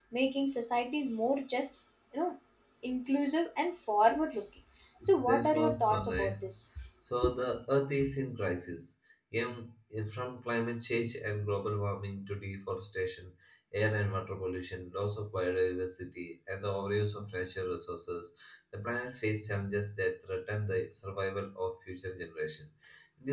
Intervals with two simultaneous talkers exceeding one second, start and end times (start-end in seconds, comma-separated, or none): 5.2-6.5